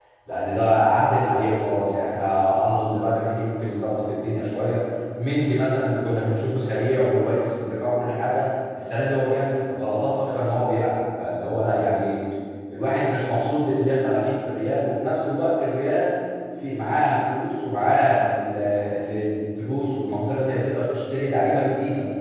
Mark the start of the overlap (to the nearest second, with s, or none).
none